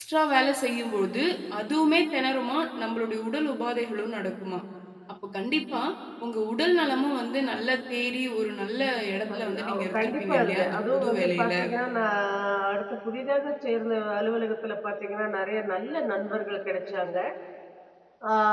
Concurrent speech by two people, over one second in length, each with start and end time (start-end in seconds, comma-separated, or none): 9.3-11.5